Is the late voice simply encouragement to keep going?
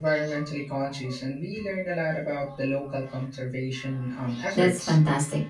No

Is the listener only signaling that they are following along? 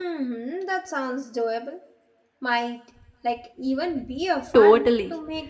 No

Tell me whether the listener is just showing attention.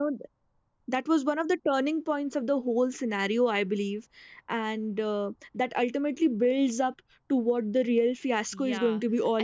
No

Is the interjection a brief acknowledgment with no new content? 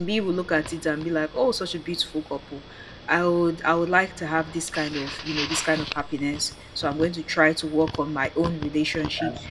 Yes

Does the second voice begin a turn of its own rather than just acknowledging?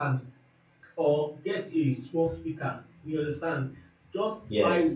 No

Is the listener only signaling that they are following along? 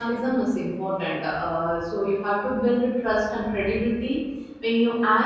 Yes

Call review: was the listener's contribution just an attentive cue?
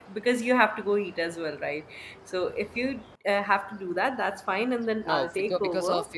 No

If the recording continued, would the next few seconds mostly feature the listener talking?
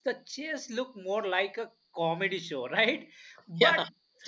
No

